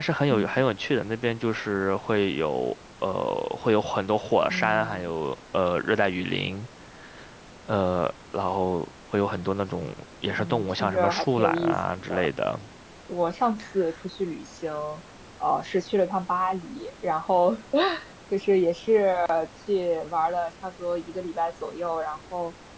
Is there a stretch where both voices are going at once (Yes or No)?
Yes